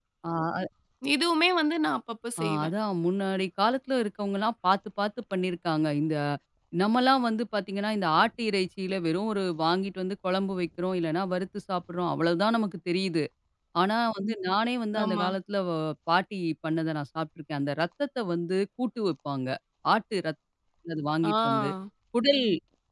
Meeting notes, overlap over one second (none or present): none